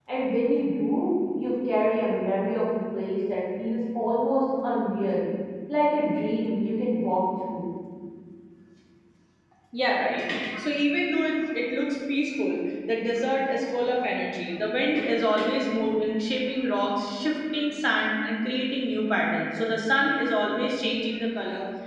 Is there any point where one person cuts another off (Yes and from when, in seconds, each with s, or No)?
No